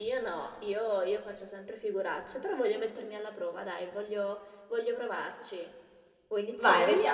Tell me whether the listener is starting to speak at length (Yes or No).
Yes